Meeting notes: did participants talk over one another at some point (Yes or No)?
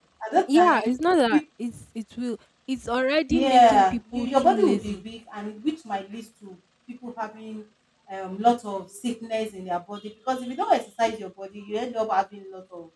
Yes